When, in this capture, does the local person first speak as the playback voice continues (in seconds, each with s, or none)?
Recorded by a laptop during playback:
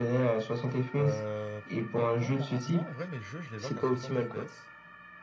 1.0 s